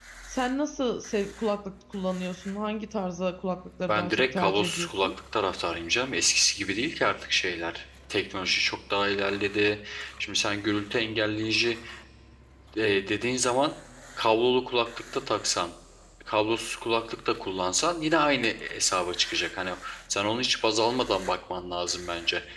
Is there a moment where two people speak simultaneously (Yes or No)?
Yes